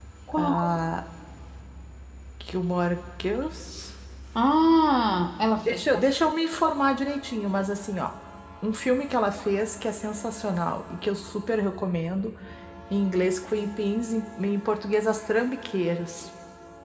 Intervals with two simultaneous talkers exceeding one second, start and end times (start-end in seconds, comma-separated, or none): none